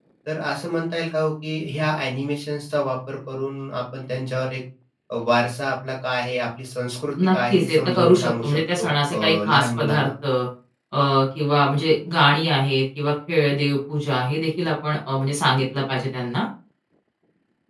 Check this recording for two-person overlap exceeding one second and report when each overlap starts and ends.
7.3-10.1

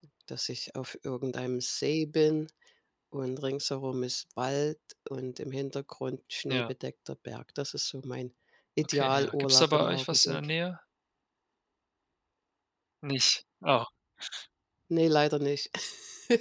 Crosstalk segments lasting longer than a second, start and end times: 8.8-10.5

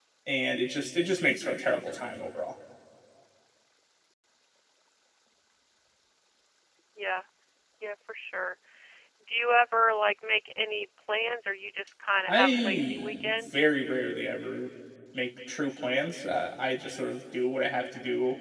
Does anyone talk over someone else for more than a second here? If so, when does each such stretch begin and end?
12.3-13.7

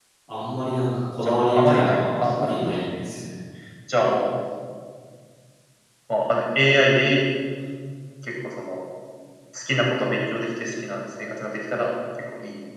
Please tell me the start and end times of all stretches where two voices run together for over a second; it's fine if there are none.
1.2-3.1

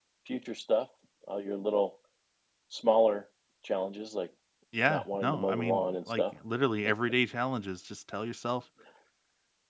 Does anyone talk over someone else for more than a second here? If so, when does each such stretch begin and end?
4.9-6.2

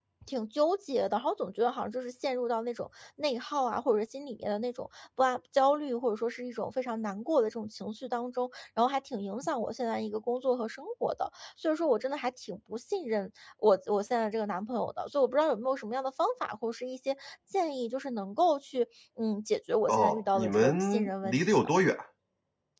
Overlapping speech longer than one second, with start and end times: 19.9-21.4

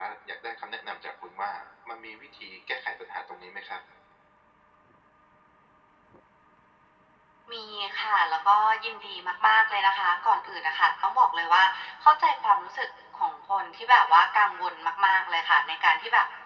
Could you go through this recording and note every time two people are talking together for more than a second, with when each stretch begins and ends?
none

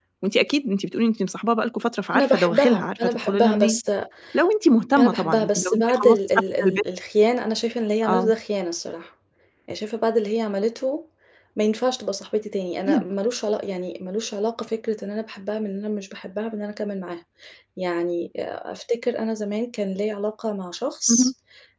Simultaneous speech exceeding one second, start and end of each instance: 2.2-3.8, 5.0-6.8

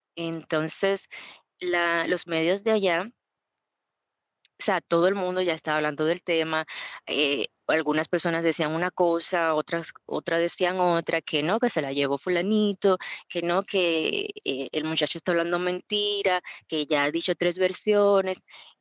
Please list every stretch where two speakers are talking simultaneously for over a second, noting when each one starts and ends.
none

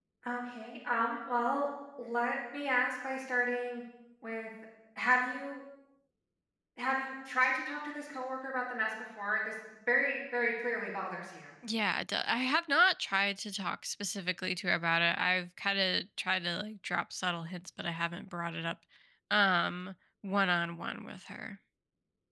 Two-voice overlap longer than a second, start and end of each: none

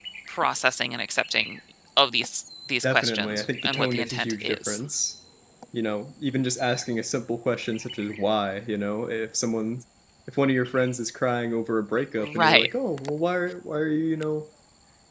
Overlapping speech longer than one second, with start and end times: 2.8-4.8

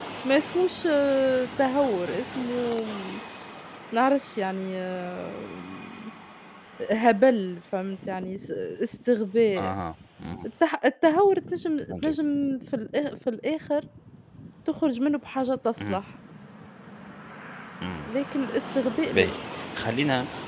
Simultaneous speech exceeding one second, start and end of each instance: none

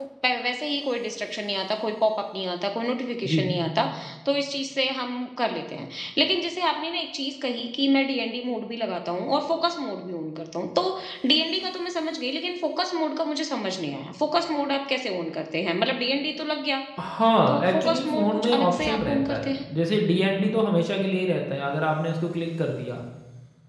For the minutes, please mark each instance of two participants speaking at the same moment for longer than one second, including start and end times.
17.5-19.5

